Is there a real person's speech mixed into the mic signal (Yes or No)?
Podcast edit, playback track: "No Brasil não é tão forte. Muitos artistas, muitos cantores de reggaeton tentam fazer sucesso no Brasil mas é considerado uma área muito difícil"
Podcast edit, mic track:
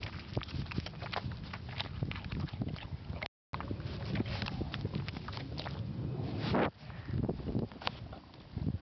No